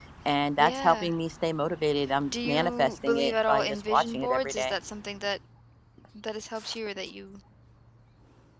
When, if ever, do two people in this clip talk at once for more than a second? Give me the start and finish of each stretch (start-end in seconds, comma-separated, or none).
2.5-4.7